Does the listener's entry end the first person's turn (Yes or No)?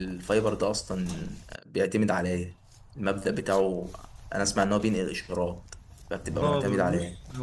Yes